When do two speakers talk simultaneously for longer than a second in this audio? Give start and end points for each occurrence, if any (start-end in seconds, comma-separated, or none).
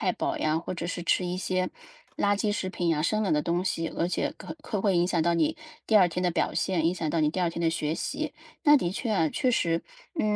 none